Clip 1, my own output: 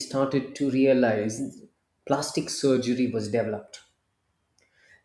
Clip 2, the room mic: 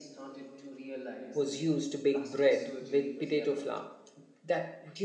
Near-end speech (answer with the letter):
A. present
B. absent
A